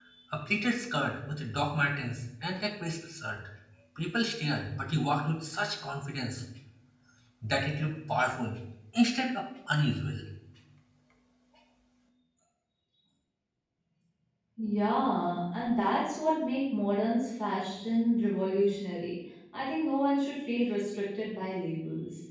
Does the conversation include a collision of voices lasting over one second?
No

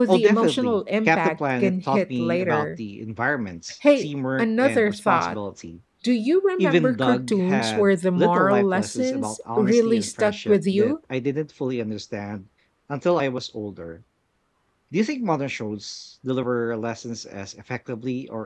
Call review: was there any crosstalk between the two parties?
Yes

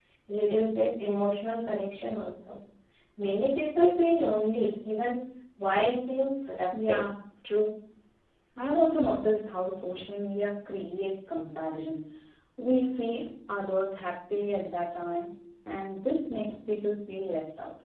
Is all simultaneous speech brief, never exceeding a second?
Yes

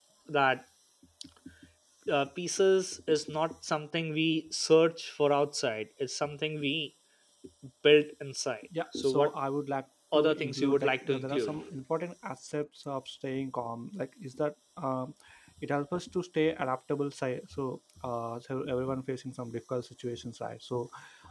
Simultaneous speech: Yes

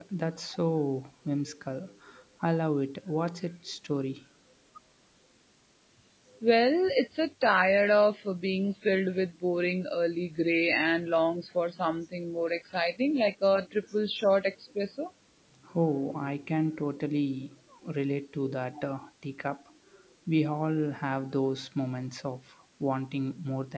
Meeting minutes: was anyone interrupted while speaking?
No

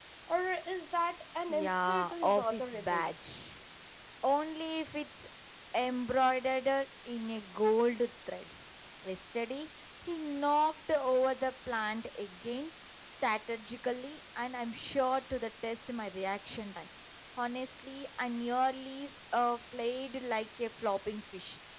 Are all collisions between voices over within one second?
No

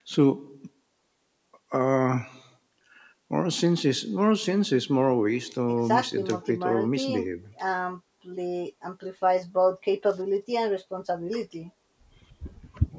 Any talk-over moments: Yes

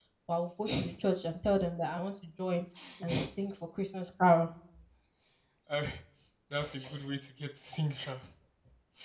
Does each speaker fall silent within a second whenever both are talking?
Yes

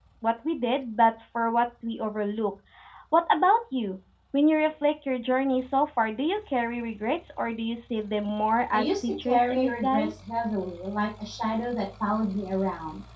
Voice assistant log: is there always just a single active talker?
No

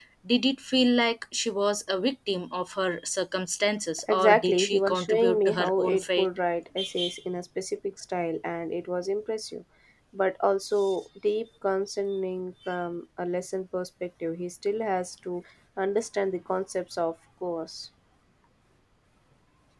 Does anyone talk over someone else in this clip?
Yes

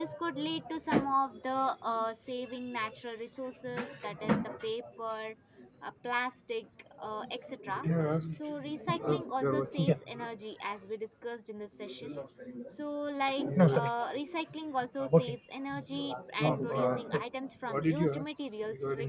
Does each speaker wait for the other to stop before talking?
No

